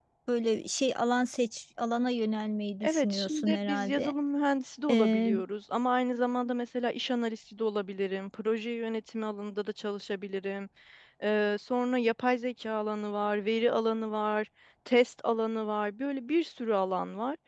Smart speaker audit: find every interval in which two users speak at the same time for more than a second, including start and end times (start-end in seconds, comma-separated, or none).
2.8-4.1